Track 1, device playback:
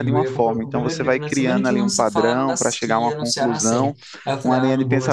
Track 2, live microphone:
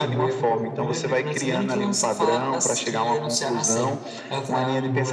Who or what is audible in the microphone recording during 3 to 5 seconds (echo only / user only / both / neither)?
echo only